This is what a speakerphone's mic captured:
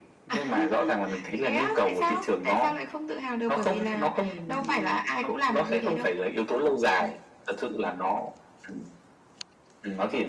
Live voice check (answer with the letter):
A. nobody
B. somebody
A